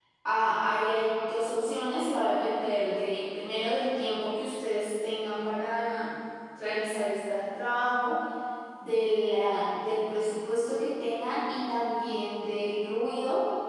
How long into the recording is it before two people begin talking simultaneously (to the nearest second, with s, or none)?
none